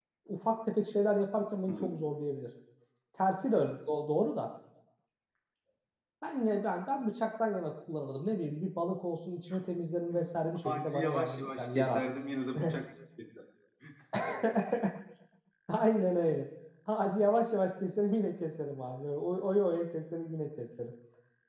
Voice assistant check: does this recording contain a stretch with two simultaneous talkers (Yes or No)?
Yes